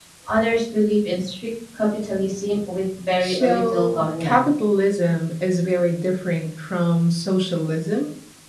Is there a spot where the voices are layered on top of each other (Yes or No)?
Yes